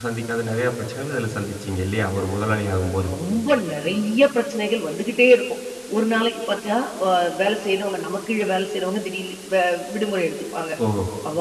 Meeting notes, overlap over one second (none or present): none